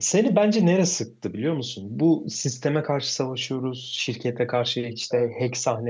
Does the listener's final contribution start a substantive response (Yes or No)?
No